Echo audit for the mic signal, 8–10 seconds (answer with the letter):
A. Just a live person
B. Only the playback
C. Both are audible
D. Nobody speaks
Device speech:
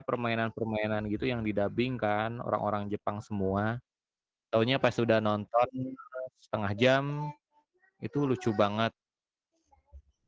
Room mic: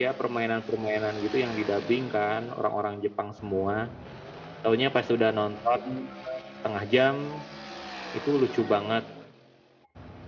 B